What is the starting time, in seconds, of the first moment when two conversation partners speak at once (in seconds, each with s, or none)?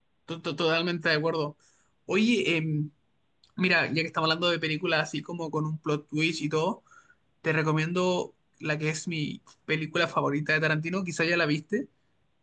none